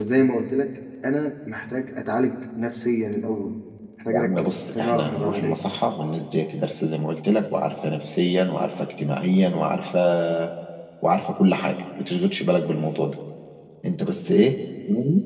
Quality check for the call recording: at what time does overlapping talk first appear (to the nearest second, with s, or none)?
4 s